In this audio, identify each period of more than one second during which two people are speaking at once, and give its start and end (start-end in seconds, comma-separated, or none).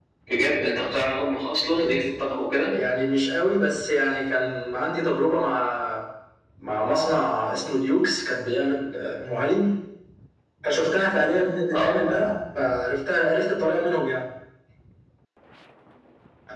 none